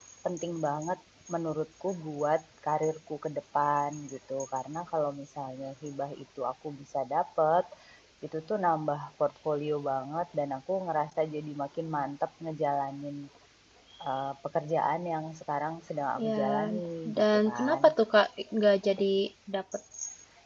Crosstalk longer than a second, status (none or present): present